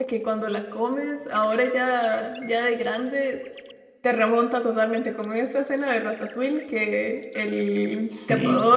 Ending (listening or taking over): listening